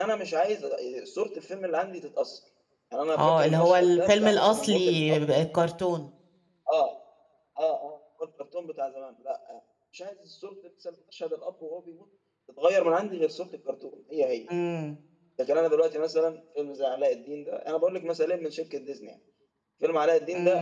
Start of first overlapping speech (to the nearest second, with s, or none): 3 s